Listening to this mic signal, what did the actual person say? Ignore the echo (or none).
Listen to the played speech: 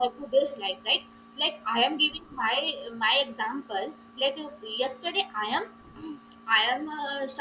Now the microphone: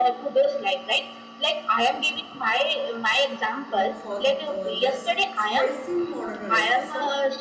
mm, for uh, just stress in modern life so